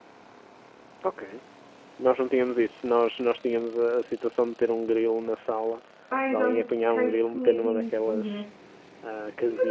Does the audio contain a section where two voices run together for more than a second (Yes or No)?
Yes